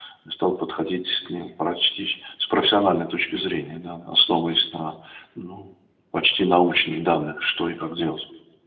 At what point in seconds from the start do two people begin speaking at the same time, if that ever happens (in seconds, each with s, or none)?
none